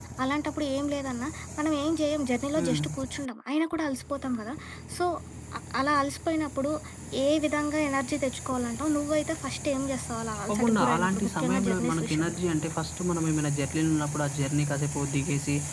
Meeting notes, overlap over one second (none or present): present